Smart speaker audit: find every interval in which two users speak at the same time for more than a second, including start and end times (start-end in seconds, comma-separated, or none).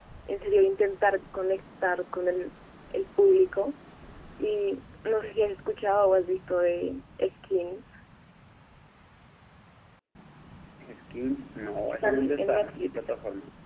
11.9-13.1